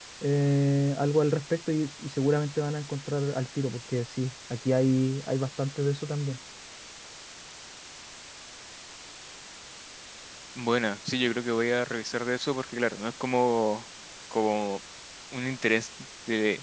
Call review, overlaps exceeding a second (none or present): none